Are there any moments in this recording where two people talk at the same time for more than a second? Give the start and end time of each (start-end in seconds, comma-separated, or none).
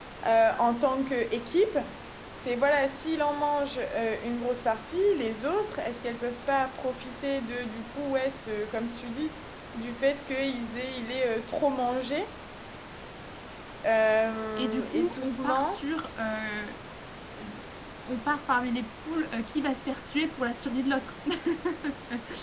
14.6-15.8